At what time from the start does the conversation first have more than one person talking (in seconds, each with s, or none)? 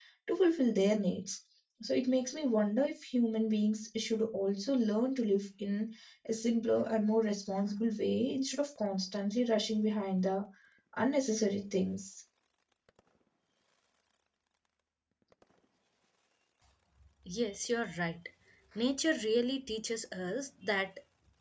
none